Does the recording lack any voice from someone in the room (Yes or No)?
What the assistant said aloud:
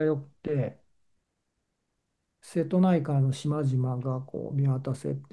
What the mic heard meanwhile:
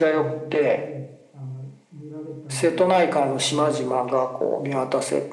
No